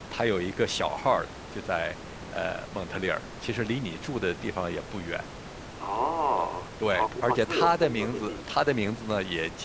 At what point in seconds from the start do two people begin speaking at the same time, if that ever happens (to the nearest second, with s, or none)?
7 s